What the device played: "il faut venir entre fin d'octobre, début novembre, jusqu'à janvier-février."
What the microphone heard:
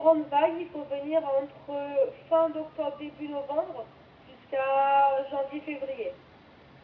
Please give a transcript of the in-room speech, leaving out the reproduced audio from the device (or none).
none